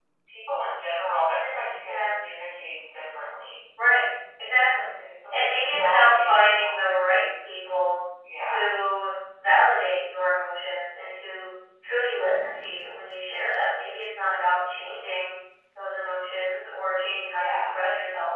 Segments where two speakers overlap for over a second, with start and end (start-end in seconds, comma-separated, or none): 5.3-6.7